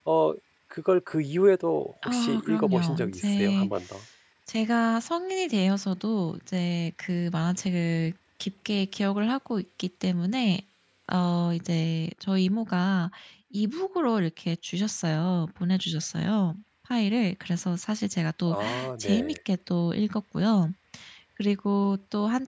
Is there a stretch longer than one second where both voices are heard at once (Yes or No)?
Yes